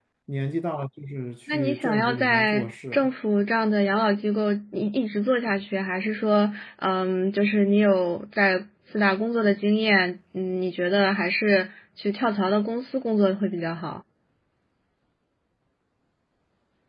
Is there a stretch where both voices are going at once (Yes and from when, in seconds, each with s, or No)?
Yes, from 1.5 s